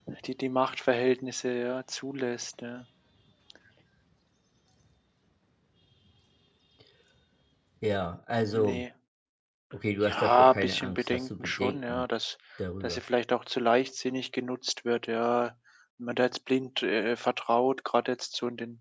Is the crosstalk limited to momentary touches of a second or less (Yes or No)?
No